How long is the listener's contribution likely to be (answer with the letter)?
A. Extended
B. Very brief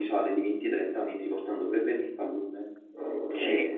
A